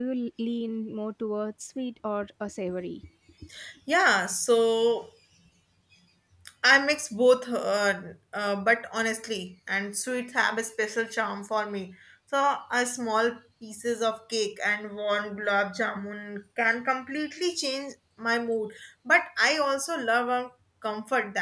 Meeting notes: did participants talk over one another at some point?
No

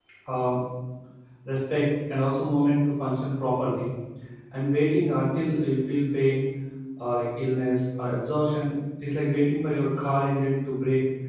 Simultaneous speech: No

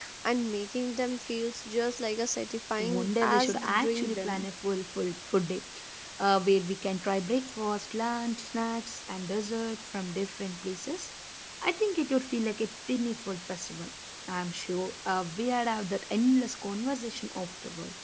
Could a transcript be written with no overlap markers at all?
No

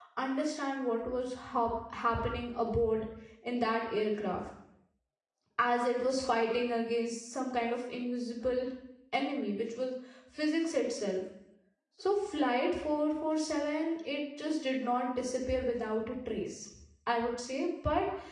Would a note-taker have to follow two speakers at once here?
No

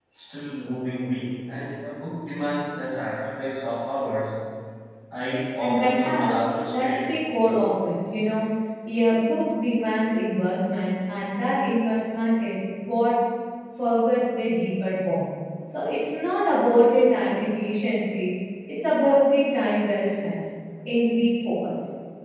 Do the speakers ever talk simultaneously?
Yes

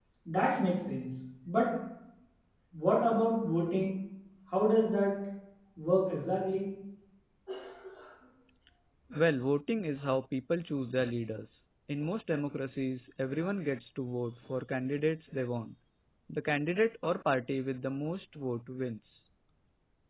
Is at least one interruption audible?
No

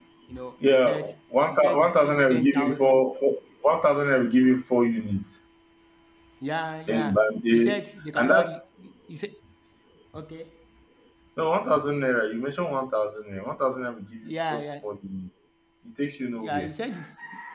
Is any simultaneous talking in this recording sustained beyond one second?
Yes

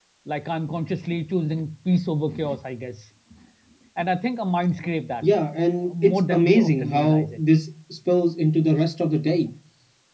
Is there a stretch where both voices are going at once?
Yes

